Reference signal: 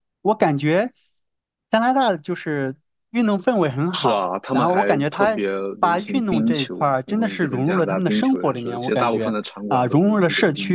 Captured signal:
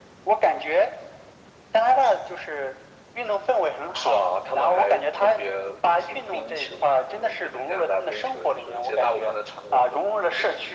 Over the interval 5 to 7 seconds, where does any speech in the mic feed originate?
echo only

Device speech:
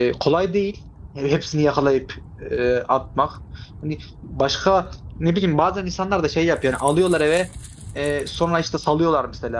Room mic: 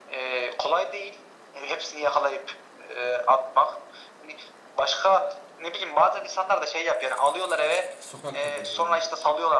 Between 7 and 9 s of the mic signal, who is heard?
both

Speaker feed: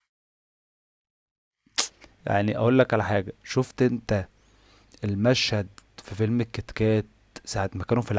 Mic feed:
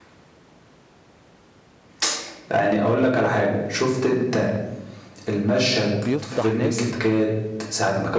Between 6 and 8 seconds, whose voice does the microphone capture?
both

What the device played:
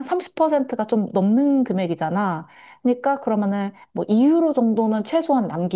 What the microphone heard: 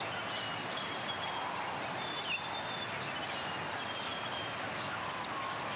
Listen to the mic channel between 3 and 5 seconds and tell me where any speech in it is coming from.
neither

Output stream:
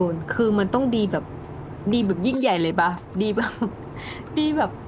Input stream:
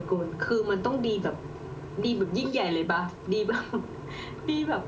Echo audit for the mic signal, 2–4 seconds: echo only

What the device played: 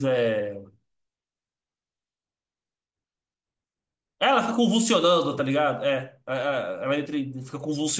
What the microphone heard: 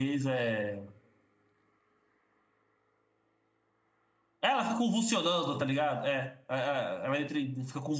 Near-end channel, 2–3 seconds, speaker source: neither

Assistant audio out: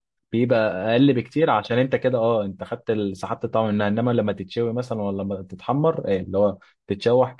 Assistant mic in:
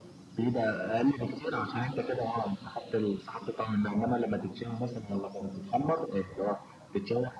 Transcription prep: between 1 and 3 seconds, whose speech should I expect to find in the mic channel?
echo only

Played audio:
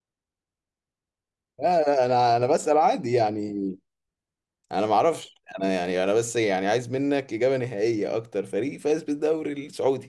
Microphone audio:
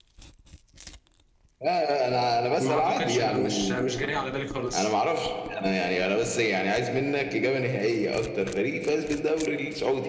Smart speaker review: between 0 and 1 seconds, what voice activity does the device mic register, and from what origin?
neither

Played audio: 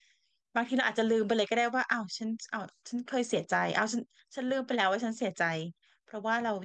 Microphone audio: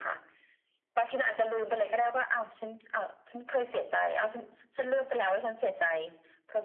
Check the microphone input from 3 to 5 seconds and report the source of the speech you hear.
echo only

